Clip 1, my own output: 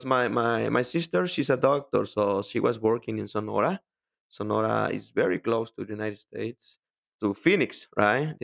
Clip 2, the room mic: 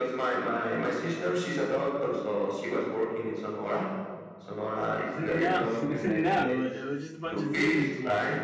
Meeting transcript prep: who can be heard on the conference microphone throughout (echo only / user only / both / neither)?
both